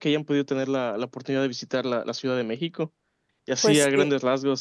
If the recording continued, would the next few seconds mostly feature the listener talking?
No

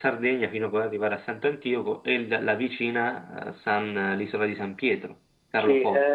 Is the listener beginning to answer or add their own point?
Yes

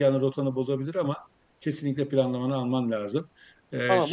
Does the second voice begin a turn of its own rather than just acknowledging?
Yes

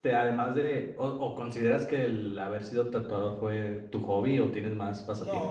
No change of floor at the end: No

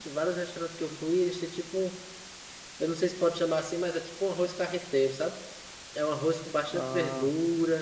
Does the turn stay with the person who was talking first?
Yes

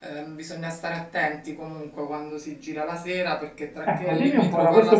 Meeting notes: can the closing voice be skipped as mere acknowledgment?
No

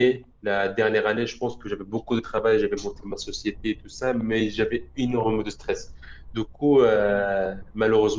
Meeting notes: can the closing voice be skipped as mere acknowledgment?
Yes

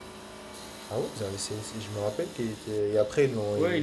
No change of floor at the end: No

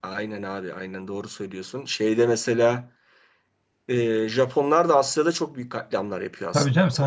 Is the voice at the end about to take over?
Yes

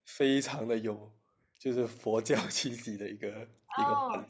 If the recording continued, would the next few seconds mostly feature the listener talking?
Yes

